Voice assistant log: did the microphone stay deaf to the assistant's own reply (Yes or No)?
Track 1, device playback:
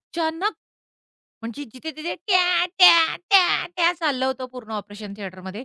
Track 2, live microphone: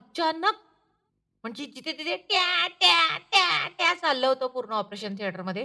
No